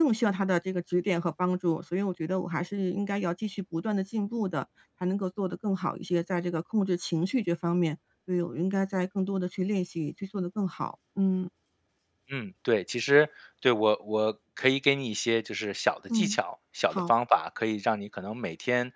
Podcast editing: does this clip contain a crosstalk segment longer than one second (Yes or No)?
No